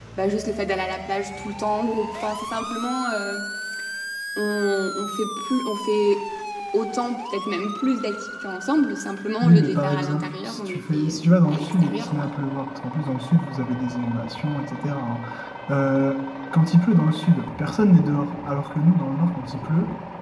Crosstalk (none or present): present